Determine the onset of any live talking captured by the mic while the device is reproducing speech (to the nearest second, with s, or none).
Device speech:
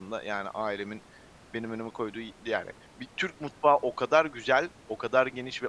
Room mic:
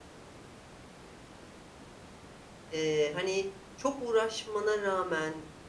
3 s